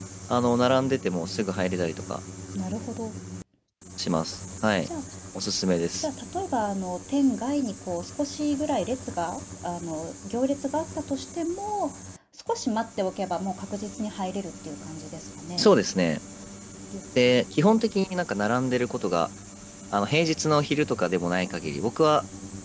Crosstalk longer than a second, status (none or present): none